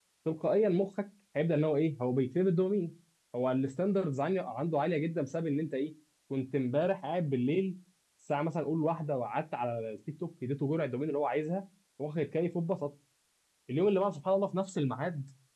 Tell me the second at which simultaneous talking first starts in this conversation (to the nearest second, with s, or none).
none